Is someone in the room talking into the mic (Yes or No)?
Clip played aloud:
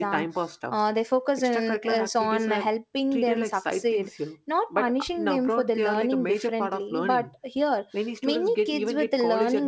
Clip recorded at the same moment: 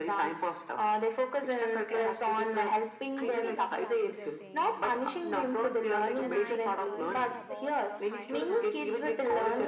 Yes